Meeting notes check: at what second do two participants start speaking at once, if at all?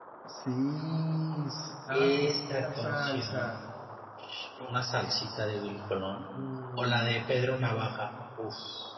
2 s

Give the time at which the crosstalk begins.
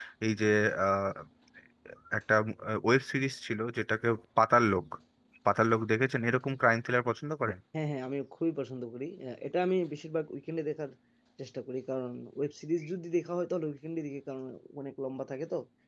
none

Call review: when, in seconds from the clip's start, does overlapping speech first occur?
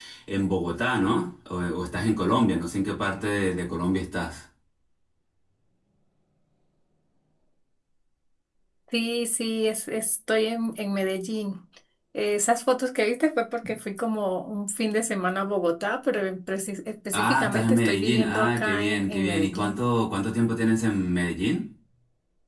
17 s

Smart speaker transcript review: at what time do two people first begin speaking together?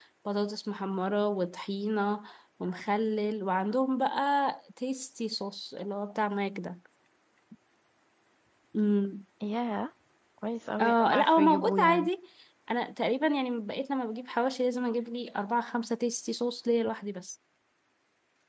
11 s

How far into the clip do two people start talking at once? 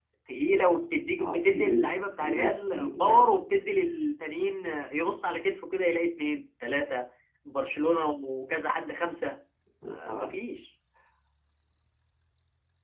1 s

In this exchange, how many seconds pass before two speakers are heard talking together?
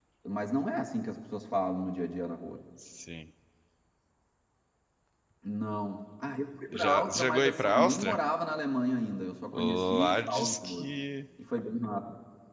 7 s

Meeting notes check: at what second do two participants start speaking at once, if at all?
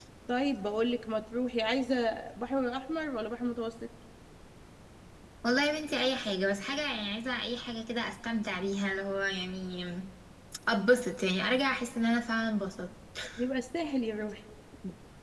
none

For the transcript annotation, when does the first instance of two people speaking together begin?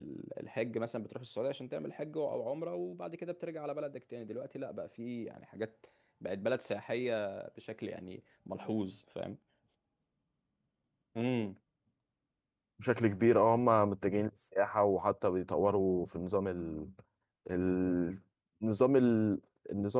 none

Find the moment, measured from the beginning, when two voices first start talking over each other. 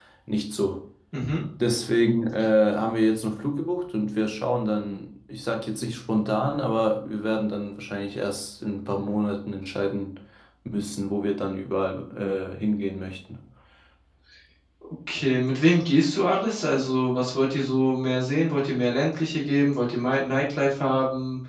none

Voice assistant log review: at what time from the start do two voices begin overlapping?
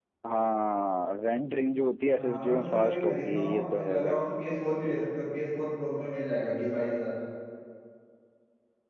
2 s

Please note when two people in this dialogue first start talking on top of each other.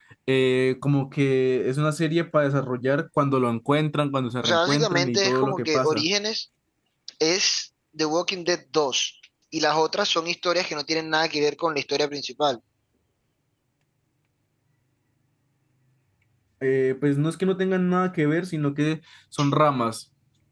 4 s

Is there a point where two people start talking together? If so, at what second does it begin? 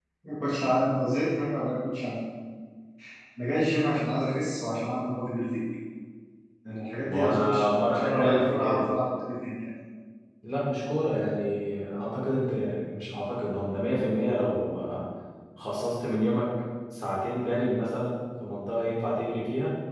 7 s

